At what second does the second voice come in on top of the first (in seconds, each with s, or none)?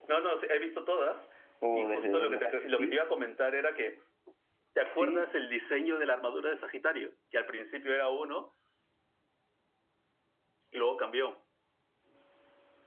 1.7 s